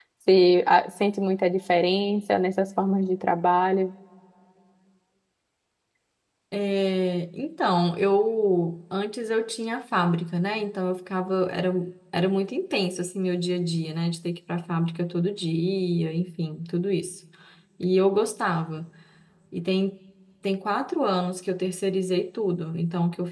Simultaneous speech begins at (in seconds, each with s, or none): none